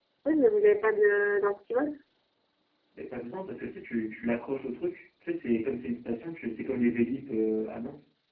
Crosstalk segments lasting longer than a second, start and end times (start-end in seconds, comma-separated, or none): none